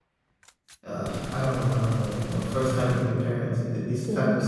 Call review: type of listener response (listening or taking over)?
listening